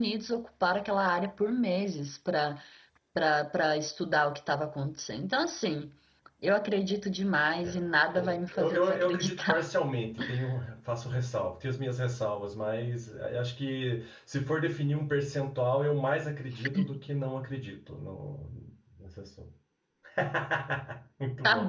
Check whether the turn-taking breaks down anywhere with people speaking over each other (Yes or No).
Yes